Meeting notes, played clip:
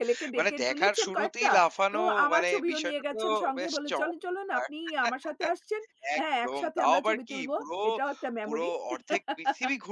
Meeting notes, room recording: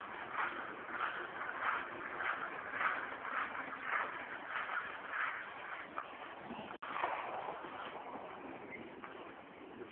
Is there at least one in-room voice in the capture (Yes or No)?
No